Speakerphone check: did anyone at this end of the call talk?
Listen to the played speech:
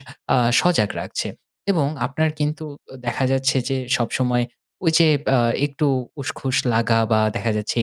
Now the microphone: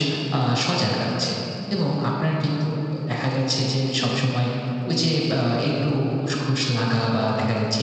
Yes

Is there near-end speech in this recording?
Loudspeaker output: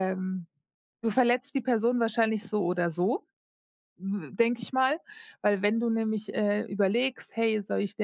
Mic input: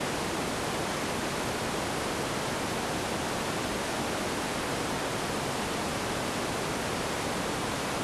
No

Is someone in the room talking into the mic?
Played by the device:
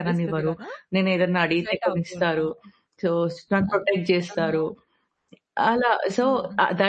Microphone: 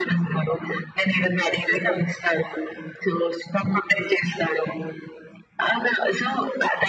No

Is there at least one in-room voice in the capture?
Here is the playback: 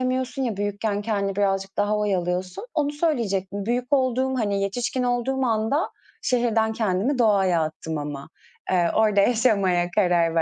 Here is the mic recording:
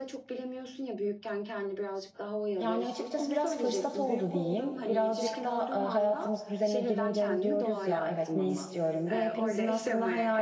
Yes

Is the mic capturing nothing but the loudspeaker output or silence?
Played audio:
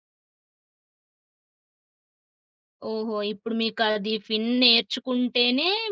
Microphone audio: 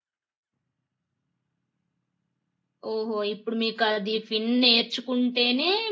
Yes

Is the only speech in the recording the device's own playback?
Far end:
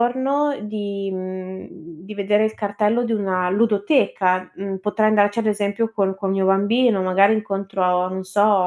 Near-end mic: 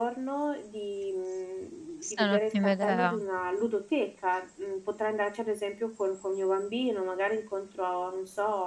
No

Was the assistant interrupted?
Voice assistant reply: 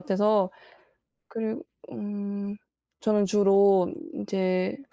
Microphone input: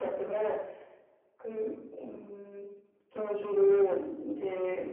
No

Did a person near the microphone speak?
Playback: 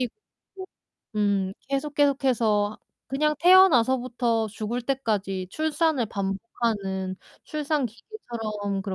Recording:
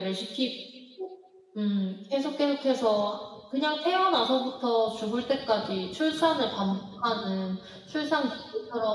No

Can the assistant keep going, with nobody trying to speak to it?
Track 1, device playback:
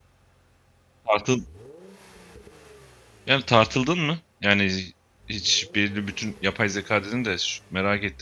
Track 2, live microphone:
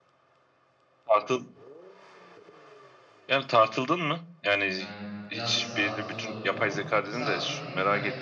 No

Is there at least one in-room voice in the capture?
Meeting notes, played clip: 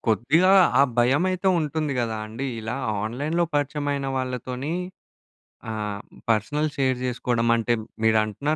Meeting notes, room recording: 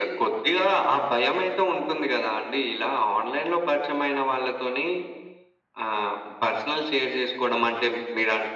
No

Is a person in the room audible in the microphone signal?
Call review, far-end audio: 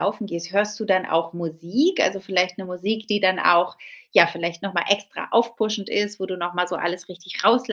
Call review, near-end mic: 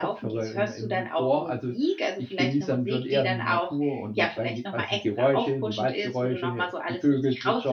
Yes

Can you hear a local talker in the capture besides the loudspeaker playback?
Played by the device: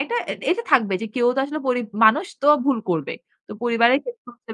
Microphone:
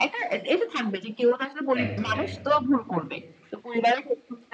Yes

